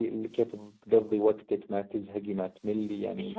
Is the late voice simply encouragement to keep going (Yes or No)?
No